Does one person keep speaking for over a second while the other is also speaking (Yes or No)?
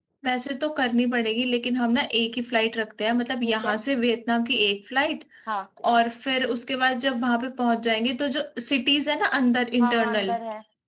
No